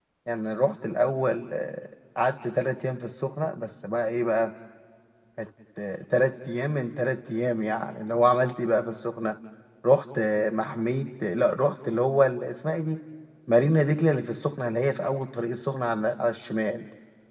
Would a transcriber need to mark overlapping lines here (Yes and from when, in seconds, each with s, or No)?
No